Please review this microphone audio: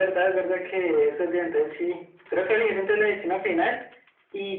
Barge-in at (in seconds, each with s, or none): none